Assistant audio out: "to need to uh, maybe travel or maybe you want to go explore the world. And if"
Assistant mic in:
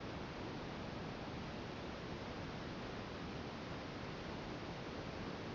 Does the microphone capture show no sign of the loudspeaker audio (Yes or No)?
Yes